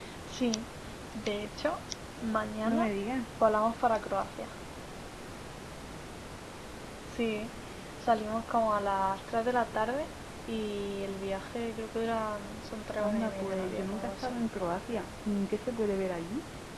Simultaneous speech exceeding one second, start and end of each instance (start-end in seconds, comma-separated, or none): 13.0-14.3